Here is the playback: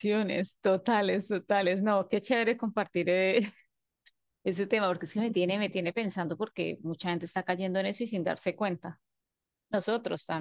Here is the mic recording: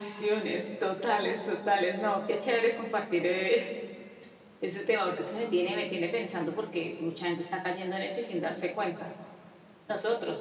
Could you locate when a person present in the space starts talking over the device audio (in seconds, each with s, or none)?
none